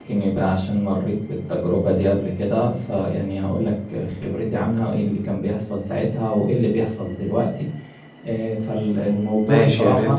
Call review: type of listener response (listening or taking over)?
taking over